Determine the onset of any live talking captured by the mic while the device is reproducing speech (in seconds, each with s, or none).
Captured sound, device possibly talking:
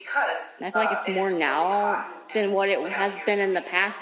0.6 s